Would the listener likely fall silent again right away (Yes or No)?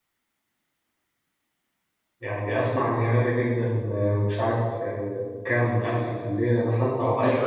No